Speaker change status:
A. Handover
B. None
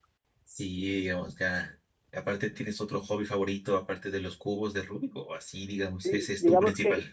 A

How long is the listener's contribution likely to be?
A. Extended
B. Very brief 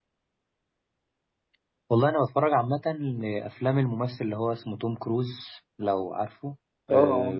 B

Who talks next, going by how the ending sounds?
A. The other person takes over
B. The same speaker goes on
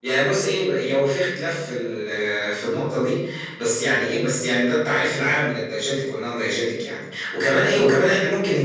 B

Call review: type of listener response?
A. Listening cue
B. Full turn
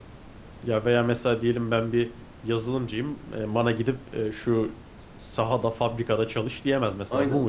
B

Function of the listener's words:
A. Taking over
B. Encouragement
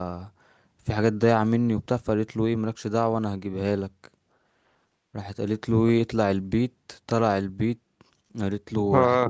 B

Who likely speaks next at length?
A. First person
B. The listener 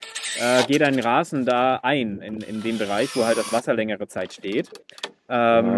B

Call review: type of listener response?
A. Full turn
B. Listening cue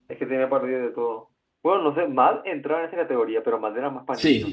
A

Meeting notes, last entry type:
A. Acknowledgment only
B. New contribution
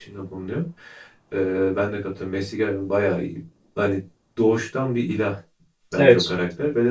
A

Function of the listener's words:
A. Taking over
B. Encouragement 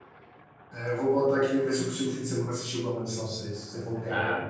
A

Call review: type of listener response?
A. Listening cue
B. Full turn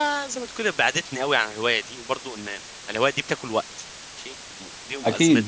B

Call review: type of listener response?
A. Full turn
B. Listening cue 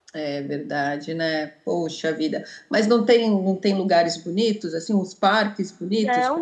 A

